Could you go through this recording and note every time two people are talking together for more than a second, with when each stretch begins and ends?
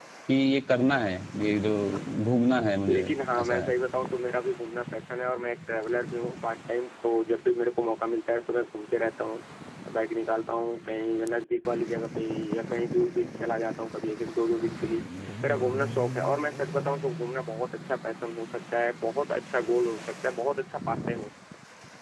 none

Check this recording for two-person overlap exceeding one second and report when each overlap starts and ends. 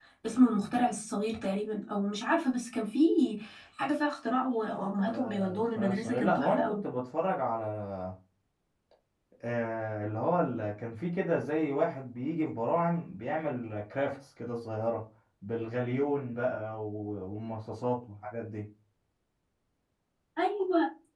5.1-6.8

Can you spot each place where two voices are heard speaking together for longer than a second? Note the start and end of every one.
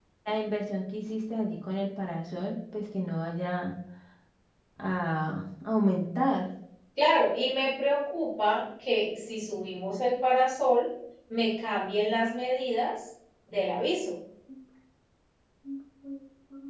none

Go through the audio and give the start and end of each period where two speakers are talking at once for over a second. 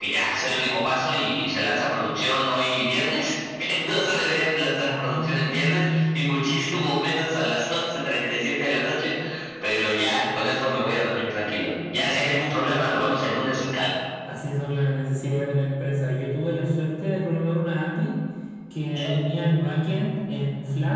4.9-6.5

